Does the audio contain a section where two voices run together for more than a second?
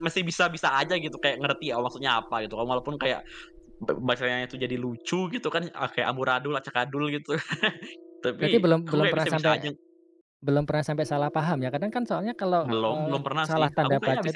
Yes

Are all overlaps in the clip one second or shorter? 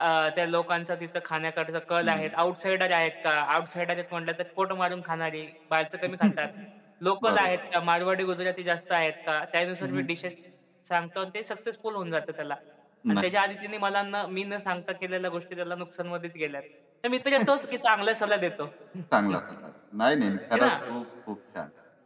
Yes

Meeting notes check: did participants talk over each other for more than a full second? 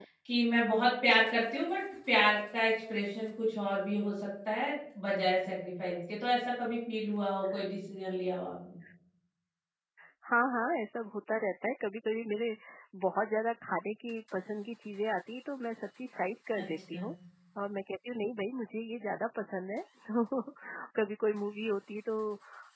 No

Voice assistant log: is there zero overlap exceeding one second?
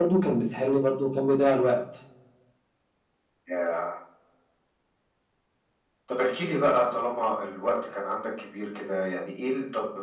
Yes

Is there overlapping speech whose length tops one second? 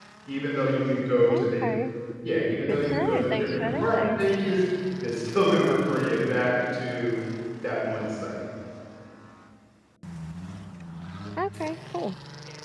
Yes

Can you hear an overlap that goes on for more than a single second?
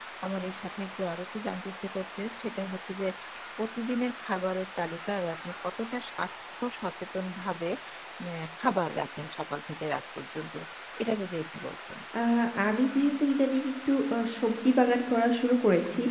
No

